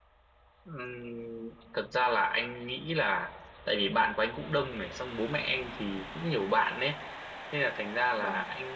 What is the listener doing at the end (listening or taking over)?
listening